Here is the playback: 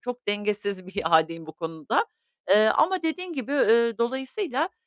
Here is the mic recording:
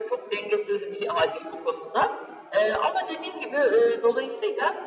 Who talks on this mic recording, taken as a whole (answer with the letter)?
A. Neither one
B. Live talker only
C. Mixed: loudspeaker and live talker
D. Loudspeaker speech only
D